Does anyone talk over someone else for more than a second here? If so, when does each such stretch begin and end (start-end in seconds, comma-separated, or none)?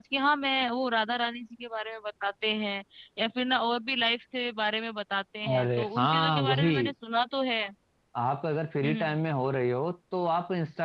5.5-6.9